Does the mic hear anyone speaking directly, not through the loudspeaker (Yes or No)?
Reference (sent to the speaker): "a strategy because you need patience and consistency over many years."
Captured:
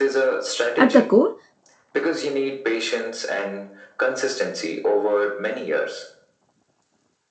Yes